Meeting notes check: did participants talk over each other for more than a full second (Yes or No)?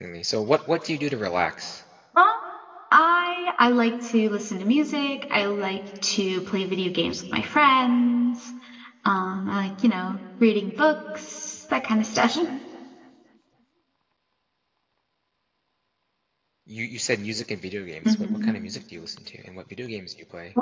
No